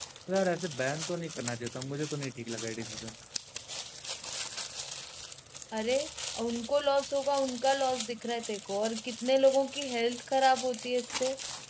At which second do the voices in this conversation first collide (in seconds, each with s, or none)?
none